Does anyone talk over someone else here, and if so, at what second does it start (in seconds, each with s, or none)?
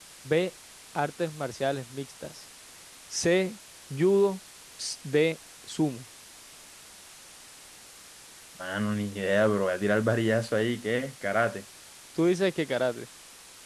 none